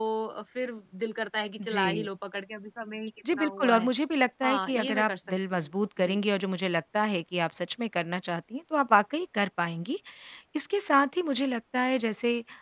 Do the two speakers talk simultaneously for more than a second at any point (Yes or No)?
Yes